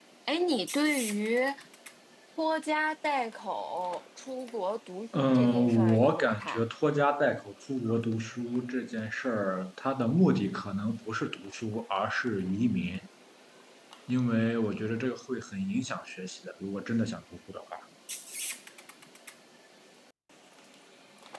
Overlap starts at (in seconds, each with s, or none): 5.1 s